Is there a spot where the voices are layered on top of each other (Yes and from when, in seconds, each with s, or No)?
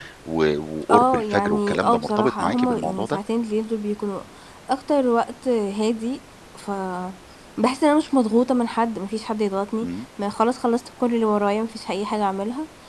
Yes, from 0.9 s